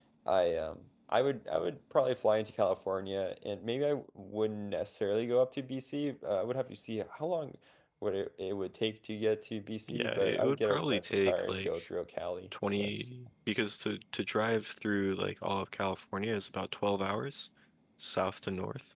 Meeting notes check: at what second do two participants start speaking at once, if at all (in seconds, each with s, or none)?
9.9 s